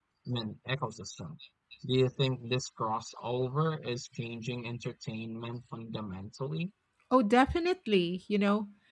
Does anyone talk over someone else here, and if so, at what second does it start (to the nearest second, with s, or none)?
none